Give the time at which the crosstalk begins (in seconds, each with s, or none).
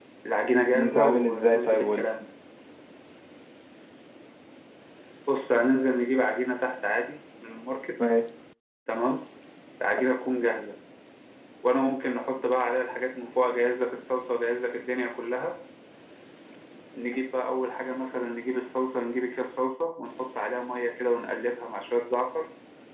0.7 s